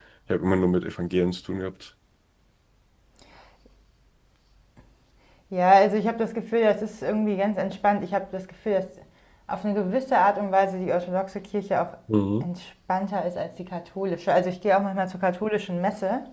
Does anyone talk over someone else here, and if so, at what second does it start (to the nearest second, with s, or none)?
none